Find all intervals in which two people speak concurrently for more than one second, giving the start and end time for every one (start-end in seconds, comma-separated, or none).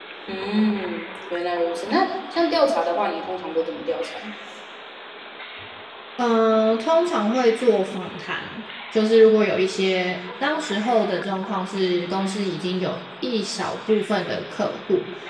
none